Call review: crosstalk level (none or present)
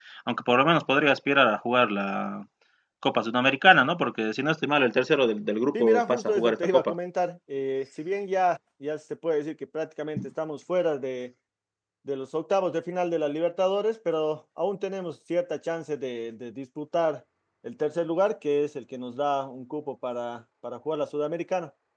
present